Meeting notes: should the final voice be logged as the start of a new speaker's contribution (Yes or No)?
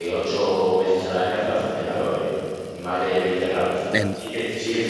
No